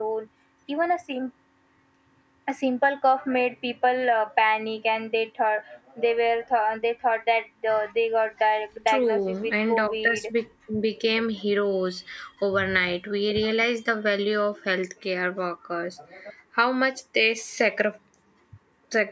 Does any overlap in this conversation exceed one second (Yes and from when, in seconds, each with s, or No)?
Yes, from 8.9 s